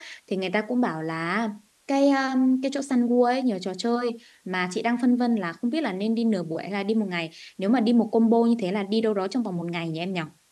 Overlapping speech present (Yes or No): No